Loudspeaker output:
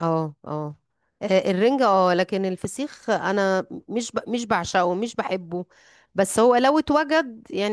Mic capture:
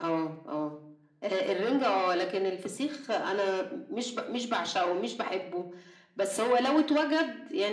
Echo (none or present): present